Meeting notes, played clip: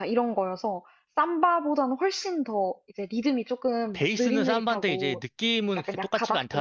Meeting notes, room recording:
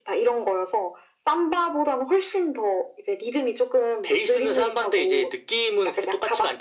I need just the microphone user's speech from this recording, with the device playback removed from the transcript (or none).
none